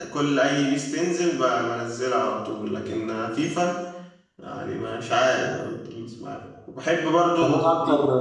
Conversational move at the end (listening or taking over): taking over